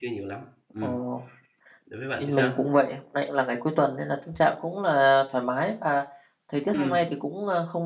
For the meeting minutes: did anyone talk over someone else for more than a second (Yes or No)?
No